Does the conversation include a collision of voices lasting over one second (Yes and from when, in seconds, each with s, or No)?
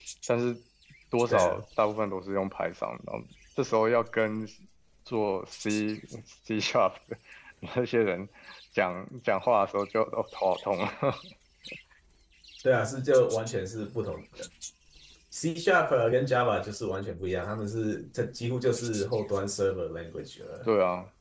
No